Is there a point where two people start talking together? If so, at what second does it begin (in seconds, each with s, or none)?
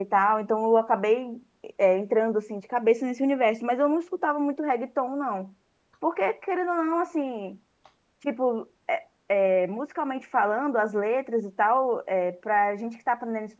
none